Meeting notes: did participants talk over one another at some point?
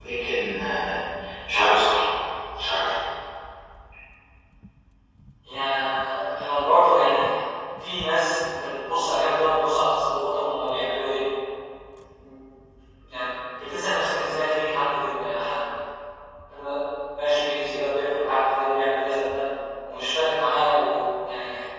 No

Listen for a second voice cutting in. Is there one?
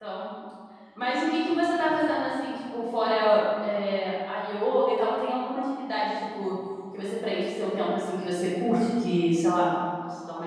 No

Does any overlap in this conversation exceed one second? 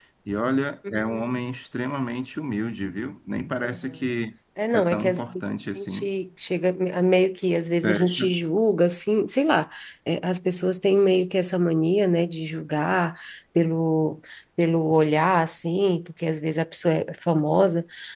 Yes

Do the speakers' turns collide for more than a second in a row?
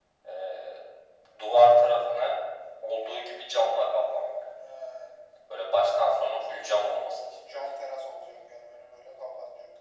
No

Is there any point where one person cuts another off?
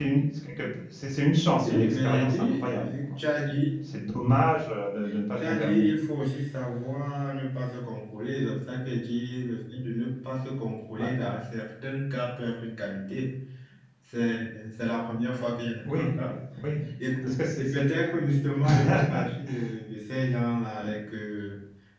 Yes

